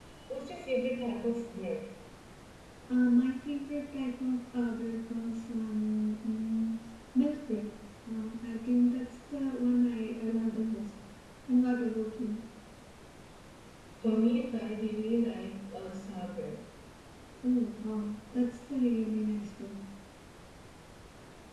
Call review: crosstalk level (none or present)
none